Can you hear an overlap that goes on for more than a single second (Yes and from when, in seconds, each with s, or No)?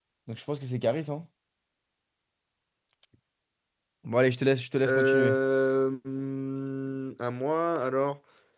No